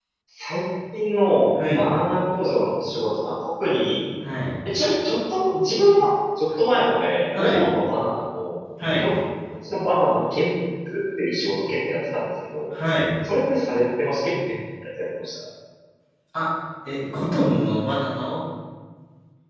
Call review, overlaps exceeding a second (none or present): none